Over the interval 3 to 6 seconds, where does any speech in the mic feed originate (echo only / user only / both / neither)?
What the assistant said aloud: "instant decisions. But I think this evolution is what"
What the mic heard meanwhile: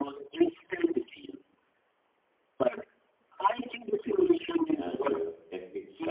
both